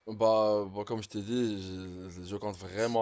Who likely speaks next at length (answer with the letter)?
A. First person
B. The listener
B